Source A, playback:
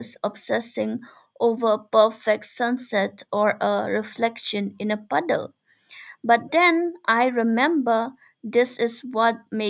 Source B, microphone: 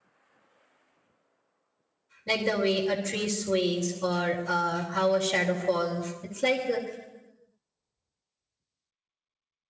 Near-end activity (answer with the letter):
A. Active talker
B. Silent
A